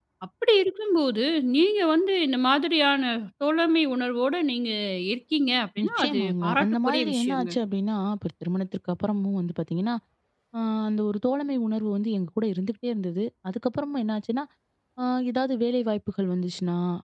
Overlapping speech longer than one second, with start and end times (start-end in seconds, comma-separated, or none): 5.8-7.5